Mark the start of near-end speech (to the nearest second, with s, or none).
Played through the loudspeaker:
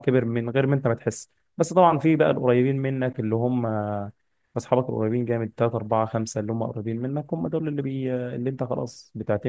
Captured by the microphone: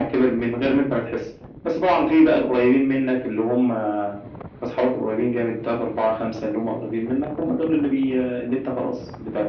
none